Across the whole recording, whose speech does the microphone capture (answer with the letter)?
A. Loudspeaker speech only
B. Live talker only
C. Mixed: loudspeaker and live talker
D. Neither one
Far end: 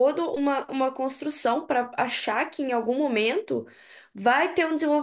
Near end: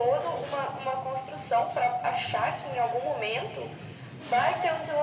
A